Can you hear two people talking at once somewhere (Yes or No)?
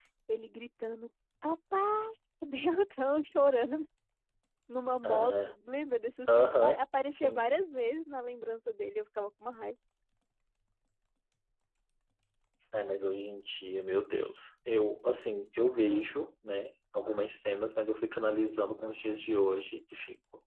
Yes